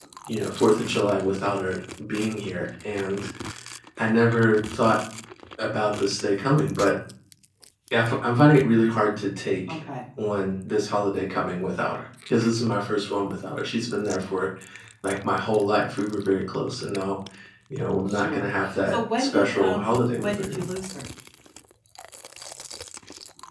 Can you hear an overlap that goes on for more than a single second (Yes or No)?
Yes